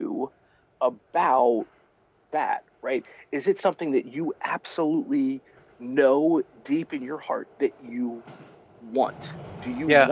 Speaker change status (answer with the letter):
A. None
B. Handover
B